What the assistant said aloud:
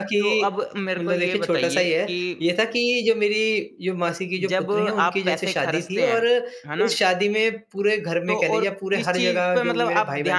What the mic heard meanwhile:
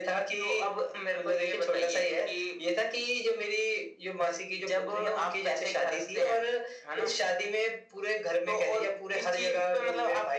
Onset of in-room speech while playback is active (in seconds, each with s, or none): none